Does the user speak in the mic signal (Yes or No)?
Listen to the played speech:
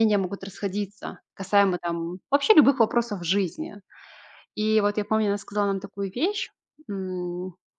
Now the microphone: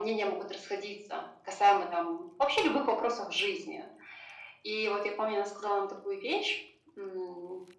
No